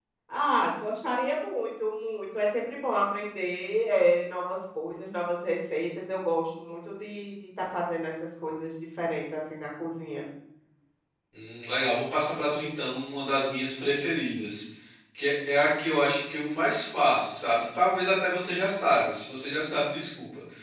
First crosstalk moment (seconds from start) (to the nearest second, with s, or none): none